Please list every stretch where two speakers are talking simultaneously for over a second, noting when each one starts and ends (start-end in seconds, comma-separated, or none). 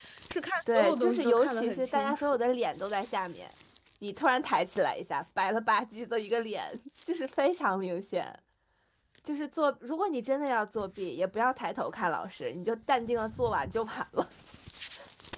0.7-2.3